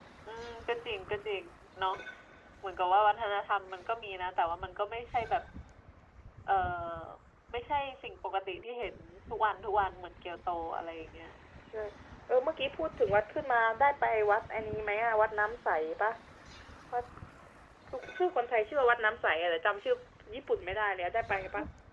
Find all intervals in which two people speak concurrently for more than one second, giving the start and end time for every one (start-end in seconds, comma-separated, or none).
none